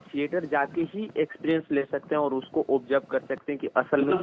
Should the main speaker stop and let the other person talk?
Yes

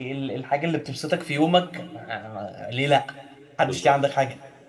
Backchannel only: No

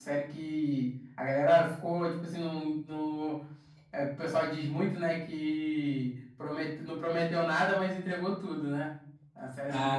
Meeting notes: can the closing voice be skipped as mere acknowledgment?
No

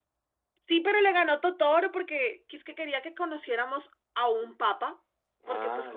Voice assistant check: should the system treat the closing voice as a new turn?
No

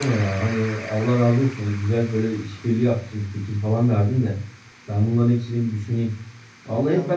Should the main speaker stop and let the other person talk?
No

